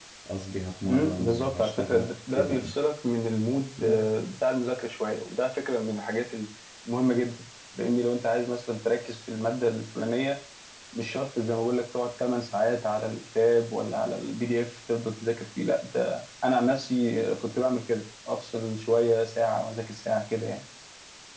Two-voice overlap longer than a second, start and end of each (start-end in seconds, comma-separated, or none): 0.9-2.7